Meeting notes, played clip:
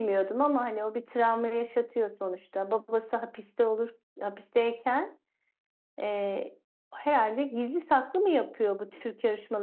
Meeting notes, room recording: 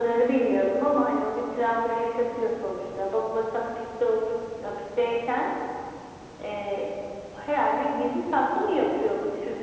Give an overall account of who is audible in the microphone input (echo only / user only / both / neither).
echo only